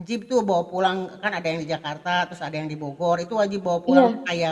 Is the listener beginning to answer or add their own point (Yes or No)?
No